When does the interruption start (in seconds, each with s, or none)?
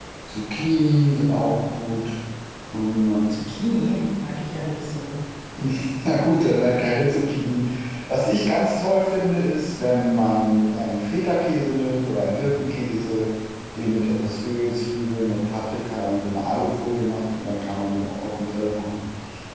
none